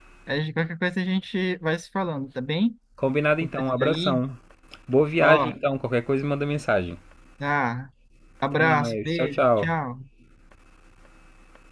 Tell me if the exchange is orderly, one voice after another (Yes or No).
No